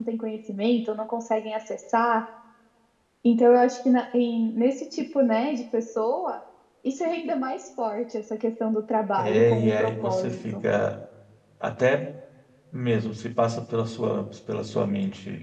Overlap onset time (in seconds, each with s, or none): 9.2 s